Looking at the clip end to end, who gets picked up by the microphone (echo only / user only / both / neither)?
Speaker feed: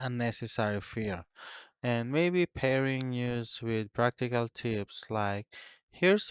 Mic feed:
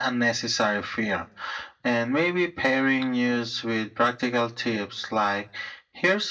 echo only